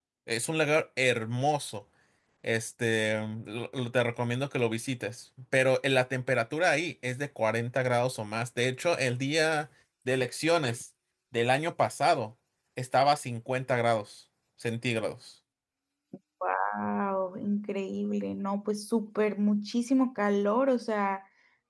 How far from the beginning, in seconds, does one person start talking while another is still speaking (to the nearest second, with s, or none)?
none